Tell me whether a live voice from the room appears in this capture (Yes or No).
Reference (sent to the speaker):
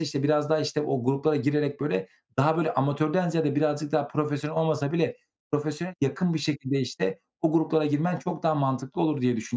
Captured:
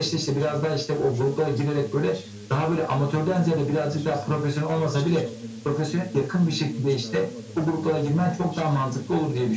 Yes